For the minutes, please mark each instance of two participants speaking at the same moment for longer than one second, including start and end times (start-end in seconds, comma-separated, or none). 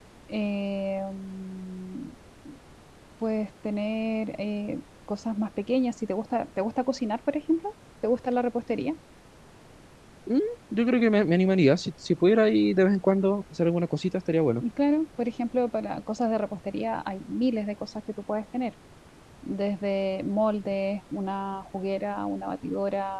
none